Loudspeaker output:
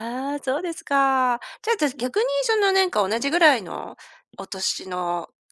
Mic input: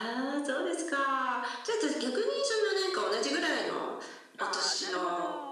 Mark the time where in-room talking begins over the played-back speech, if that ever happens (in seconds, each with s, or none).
4.4 s